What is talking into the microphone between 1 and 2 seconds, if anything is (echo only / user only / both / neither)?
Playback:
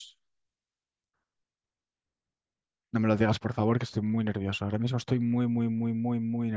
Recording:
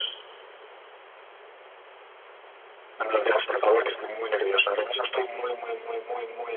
neither